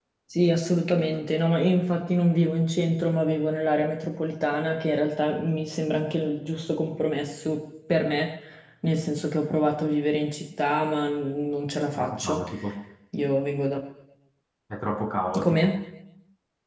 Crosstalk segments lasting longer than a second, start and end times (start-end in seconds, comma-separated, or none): none